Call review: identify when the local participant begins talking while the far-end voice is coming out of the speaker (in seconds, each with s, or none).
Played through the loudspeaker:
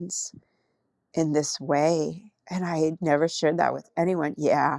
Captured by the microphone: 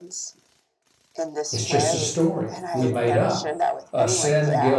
1.5 s